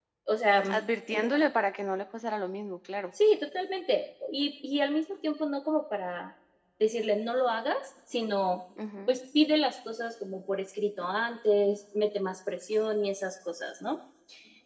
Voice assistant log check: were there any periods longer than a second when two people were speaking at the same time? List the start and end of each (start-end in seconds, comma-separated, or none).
none